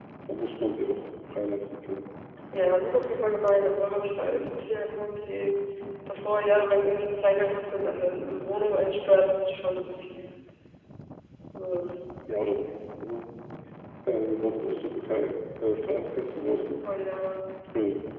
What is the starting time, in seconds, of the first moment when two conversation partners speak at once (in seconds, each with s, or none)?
none